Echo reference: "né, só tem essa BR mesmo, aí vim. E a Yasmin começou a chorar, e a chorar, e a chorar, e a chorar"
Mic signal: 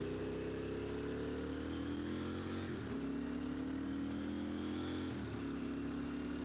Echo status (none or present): none